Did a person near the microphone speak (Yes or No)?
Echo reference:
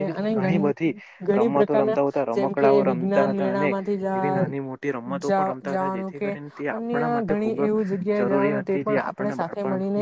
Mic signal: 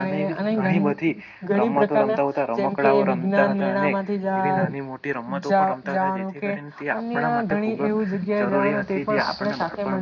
No